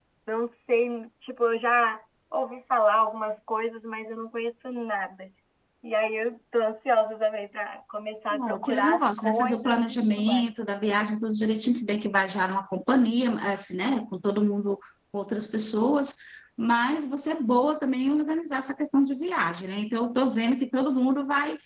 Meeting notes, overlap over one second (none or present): present